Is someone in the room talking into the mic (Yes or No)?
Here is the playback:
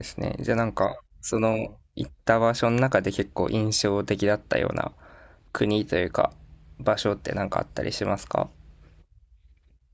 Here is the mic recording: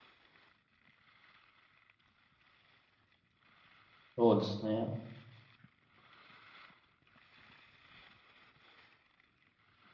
Yes